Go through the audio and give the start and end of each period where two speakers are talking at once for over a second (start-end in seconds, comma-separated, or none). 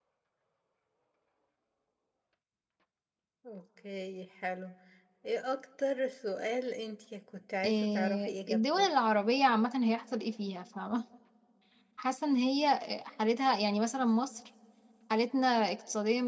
7.6-8.9